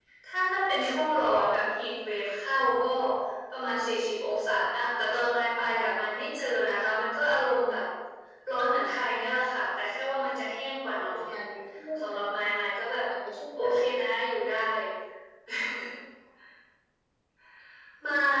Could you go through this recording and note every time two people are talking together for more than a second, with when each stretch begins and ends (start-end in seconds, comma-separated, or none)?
none